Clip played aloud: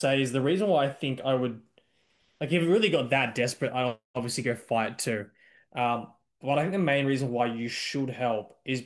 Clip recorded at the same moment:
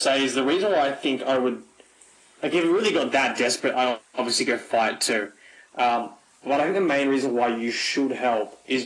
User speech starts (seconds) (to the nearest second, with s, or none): none